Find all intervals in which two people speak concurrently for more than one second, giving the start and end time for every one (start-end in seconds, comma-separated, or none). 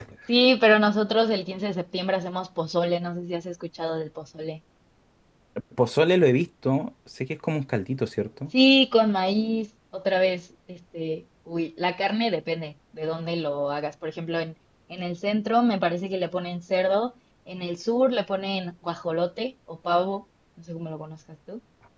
none